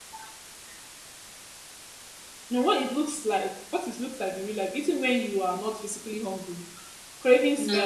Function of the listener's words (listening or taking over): listening